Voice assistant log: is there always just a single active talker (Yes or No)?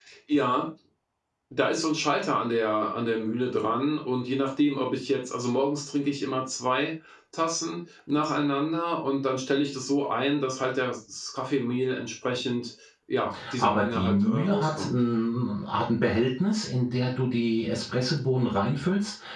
No